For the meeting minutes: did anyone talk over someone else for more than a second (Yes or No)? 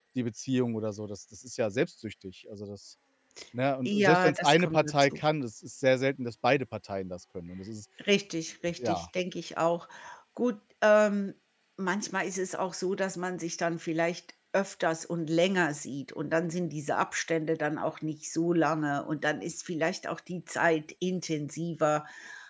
Yes